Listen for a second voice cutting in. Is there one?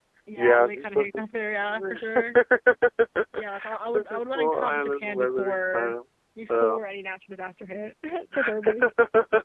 Yes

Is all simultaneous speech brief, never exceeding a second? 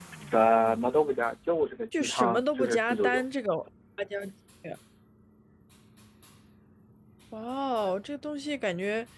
No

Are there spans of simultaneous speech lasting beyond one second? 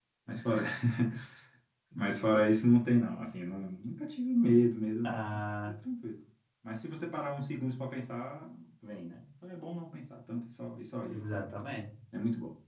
No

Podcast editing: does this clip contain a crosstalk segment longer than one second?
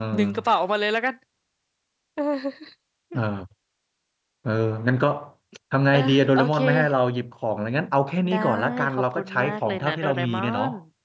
Yes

